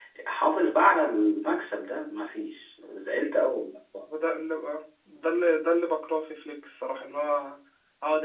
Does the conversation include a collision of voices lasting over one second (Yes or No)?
No